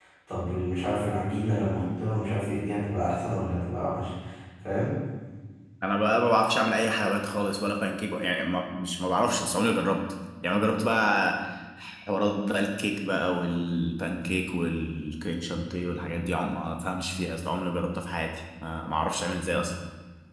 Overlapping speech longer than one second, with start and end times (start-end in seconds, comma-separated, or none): none